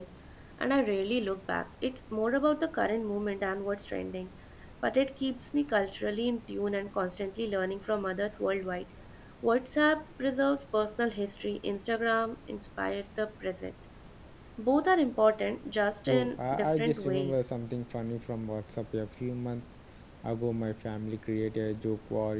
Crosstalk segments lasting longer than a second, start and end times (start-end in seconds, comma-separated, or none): 16.1-17.5